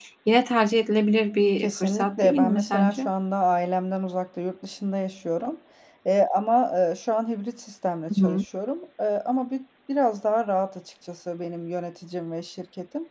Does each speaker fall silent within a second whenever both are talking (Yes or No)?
No